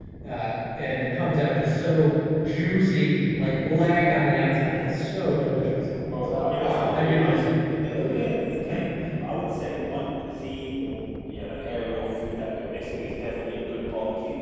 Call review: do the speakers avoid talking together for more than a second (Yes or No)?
No